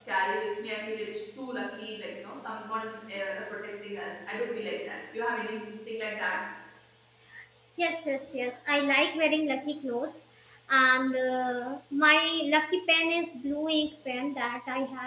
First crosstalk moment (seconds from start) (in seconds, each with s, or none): none